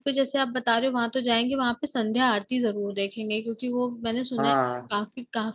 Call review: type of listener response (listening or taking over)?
listening